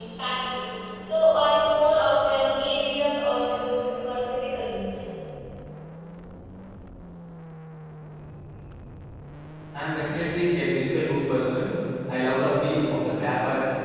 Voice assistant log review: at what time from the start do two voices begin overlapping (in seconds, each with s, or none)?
none